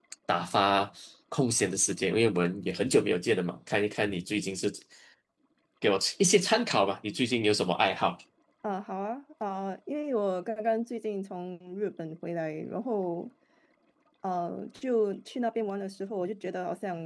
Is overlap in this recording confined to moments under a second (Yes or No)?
Yes